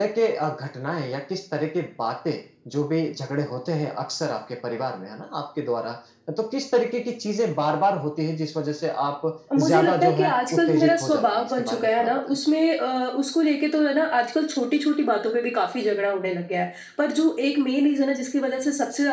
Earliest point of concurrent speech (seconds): 9.6 s

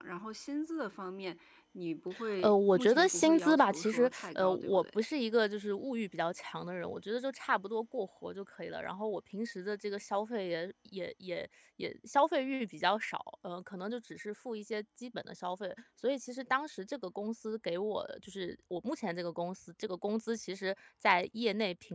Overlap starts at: 2.4 s

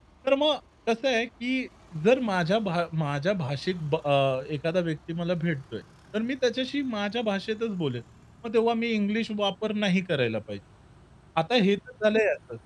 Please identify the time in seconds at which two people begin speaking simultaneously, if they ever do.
none

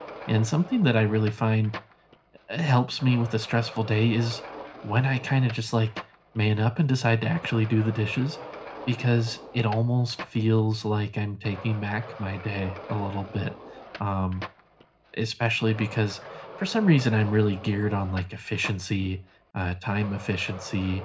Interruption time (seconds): none

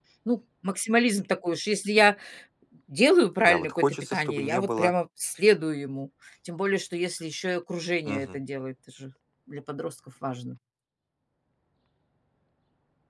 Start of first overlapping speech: 3.4 s

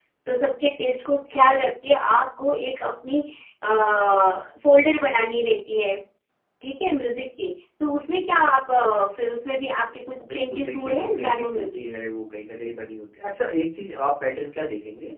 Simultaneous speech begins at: 10.2 s

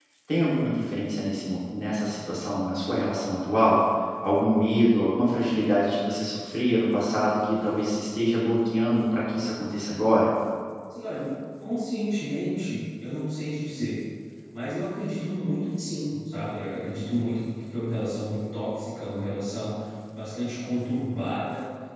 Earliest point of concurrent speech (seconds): none

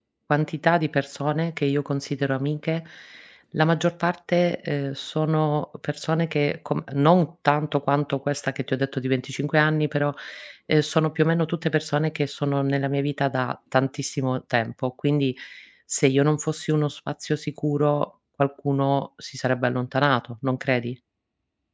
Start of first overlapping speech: none

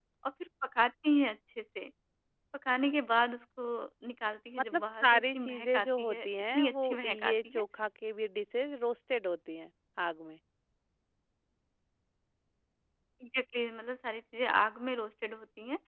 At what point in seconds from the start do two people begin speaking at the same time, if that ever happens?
4.7 s

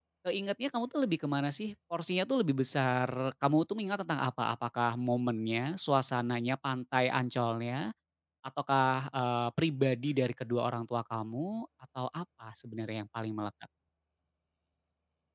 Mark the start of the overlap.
none

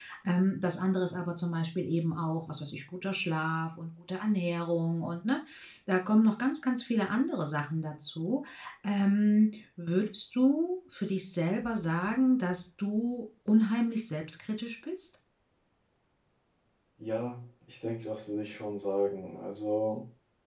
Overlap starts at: none

